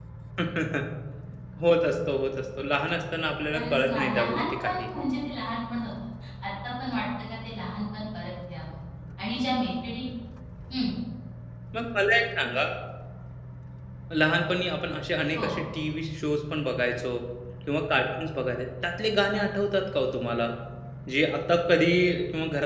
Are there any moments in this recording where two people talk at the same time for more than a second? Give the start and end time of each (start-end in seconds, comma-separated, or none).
3.5-4.9